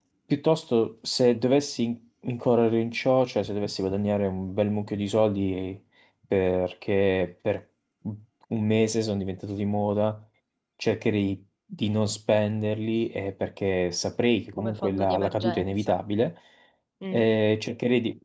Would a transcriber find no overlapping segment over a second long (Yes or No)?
No